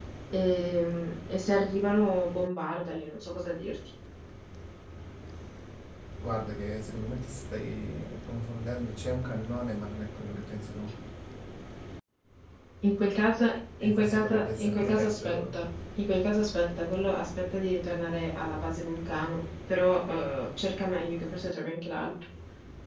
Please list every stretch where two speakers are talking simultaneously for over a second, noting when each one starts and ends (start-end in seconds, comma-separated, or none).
13.8-15.6